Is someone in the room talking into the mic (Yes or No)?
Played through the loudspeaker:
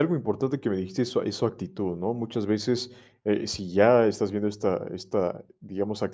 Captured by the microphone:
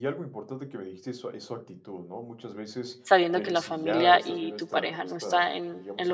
Yes